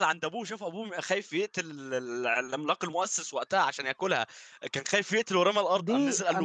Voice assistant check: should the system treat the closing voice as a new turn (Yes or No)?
Yes